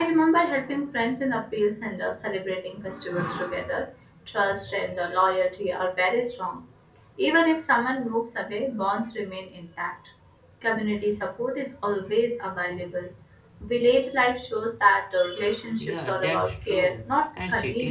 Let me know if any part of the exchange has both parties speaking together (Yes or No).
Yes